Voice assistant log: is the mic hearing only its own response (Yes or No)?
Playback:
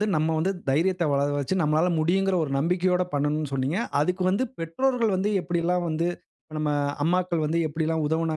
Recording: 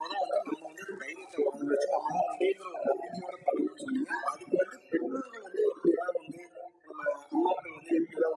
Yes